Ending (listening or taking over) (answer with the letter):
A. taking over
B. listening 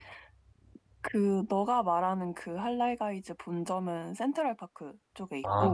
A